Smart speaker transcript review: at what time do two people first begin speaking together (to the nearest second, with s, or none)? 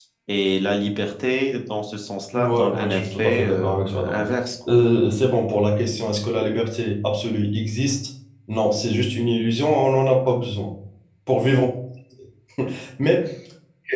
2 s